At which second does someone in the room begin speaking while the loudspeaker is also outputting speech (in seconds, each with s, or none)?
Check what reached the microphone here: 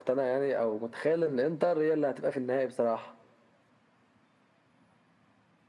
none